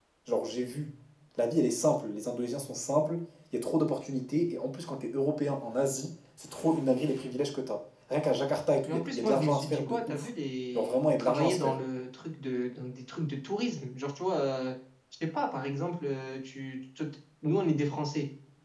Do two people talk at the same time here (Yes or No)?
Yes